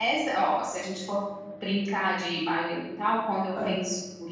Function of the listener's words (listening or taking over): listening